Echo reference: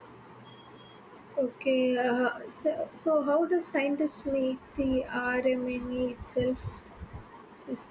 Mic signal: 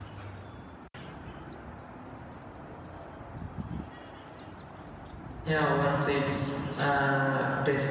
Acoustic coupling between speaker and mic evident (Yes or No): No